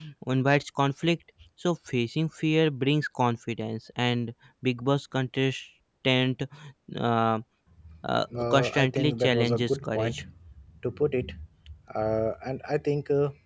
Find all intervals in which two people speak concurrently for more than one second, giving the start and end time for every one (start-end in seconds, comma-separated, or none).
8.3-10.2